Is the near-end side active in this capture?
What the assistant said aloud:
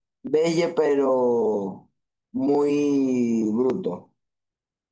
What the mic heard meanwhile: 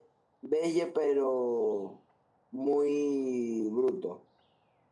No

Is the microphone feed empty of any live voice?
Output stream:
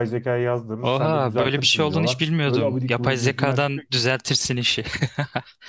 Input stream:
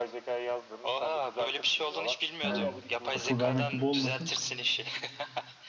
No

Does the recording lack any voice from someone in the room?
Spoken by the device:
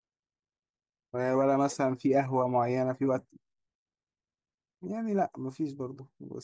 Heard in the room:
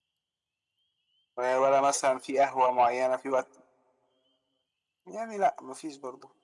Yes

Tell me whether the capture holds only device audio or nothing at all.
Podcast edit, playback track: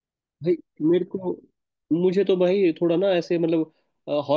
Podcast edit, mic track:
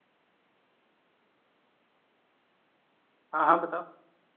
No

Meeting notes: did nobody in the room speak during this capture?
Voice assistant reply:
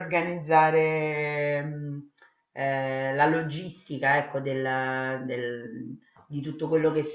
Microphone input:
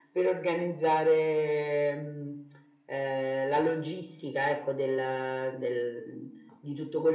Yes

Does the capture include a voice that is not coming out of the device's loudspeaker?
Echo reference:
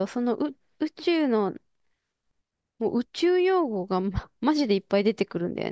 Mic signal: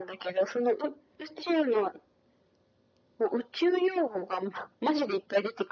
No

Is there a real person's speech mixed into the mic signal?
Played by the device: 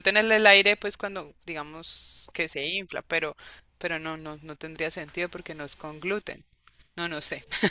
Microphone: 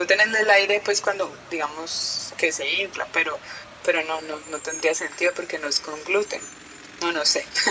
No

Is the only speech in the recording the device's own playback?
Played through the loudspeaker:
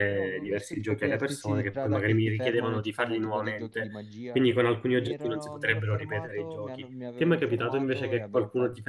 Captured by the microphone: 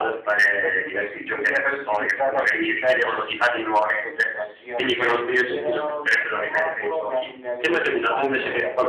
Yes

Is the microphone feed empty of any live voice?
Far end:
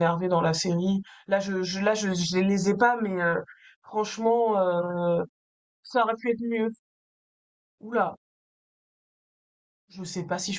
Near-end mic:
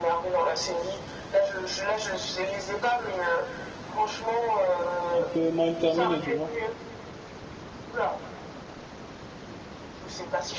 No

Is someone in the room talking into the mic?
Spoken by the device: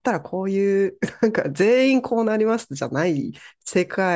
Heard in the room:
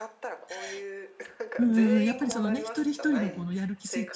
Yes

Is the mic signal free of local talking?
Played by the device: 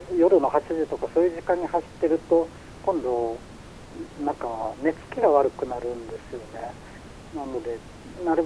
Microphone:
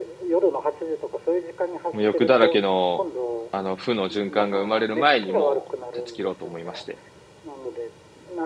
No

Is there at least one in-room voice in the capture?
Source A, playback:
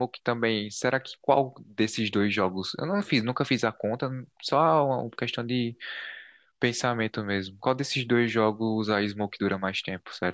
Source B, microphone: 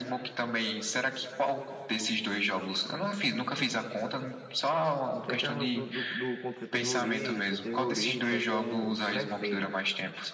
Yes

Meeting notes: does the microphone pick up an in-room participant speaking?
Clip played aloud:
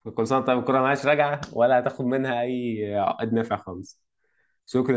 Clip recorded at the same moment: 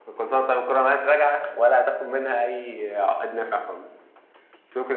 No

